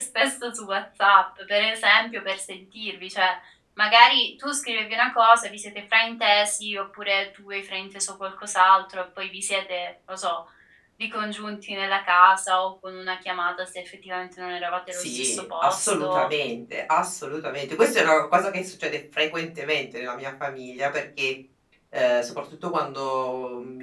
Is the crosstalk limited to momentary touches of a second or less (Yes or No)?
No